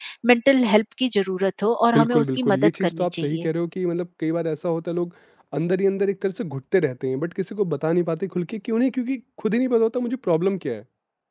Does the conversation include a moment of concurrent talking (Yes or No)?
Yes